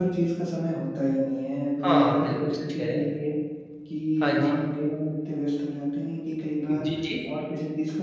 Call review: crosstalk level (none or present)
present